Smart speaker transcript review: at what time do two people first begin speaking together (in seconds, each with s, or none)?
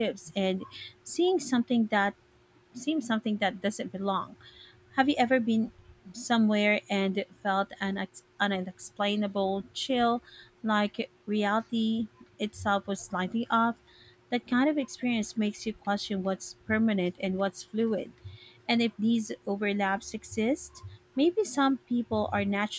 none